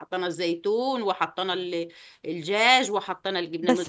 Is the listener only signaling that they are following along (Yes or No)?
No